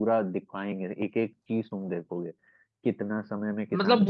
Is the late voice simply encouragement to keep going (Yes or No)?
No